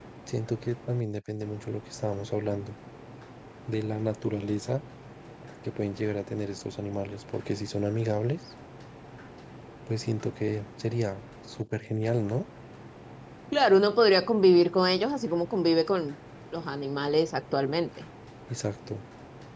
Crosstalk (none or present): none